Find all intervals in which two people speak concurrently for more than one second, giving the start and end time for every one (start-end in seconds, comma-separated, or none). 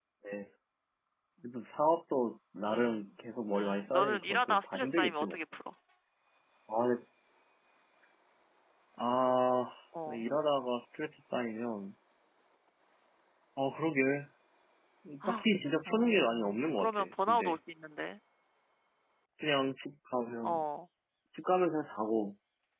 3.5-5.4, 15.8-17.5